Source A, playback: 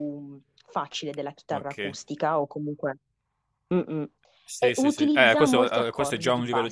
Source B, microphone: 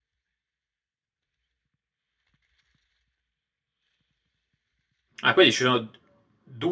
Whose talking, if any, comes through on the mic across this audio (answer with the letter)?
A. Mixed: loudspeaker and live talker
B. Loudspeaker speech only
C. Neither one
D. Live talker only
D